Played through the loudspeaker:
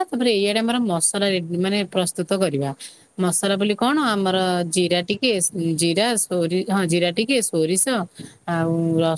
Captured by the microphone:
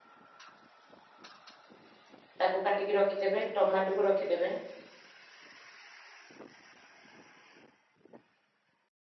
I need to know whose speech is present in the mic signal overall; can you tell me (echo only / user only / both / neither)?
user only